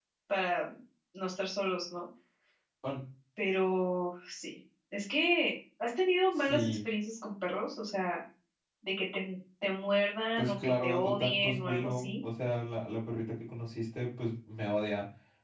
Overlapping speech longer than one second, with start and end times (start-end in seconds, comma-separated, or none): 10.4-12.1